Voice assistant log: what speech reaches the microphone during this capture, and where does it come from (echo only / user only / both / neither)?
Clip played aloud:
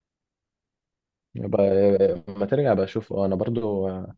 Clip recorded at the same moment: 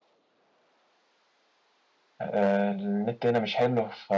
user only